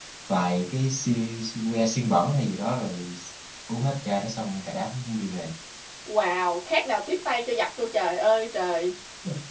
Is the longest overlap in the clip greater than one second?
No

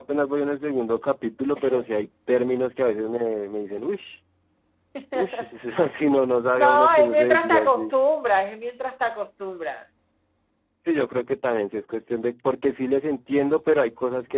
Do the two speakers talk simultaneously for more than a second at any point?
Yes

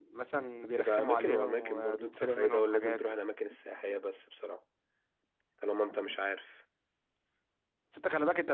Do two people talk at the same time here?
Yes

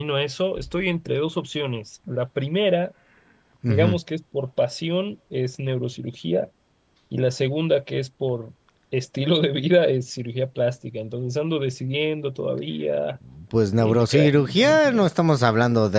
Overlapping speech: Yes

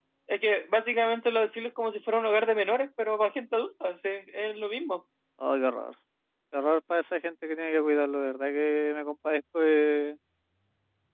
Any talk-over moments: No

